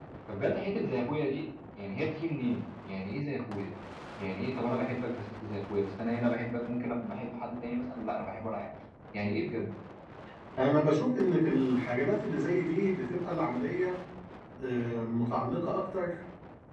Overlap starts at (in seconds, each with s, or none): none